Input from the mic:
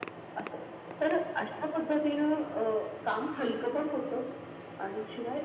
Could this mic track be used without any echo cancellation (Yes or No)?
No